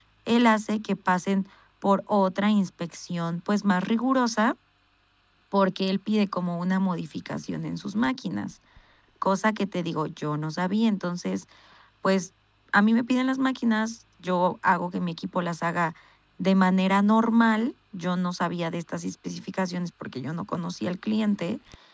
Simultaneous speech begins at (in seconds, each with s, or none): none